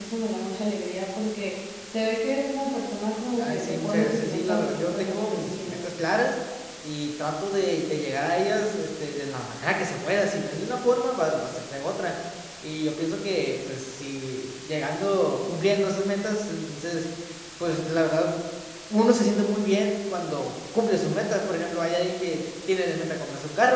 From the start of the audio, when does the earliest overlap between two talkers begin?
3.4 s

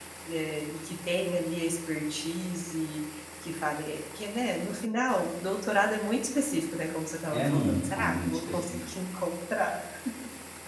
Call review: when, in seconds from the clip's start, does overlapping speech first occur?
7.2 s

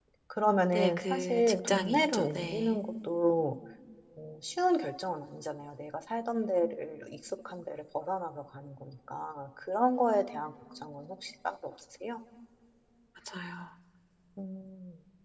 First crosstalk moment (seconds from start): 0.7 s

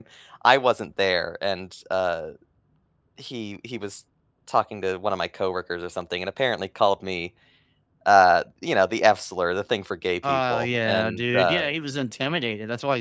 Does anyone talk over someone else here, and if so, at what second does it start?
10.2 s

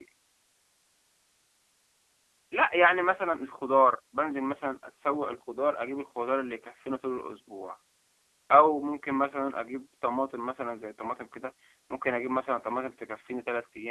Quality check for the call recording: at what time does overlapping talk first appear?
none

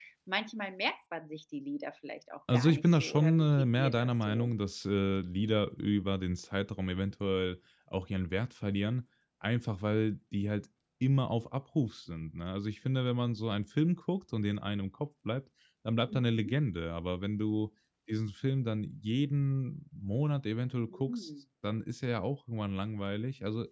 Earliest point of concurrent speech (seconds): 2.5 s

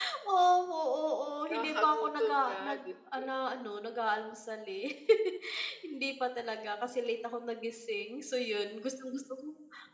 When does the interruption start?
1.5 s

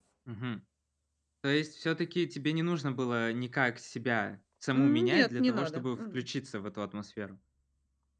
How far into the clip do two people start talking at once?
4.7 s

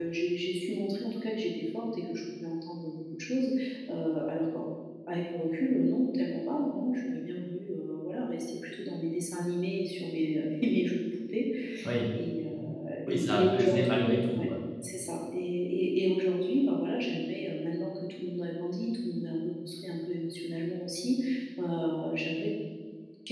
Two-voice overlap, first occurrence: 13.1 s

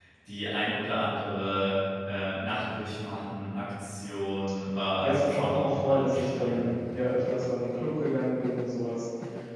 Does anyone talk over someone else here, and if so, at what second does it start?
5.0 s

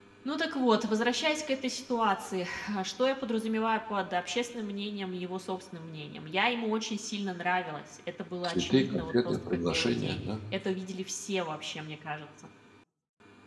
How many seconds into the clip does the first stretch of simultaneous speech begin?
8.4 s

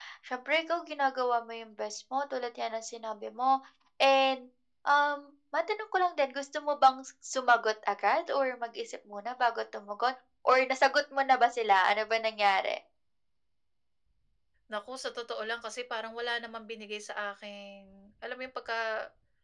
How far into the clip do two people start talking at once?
none

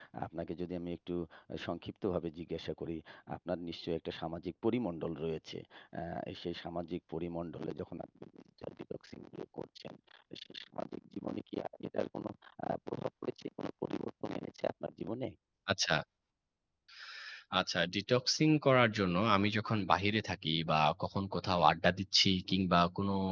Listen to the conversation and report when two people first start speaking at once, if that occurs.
none

